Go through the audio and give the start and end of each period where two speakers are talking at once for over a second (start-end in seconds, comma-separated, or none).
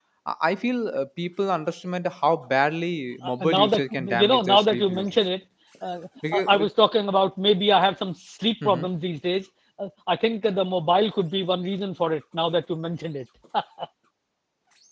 3.2-5.0